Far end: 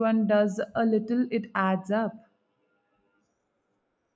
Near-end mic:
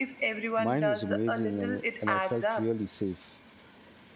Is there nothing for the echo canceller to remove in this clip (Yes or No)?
No